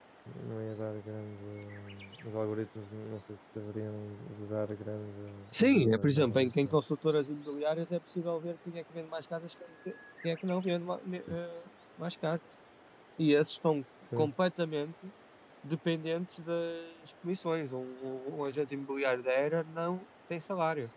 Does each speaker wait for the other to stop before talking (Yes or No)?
No